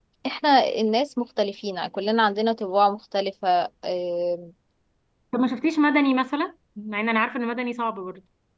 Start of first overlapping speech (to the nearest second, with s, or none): none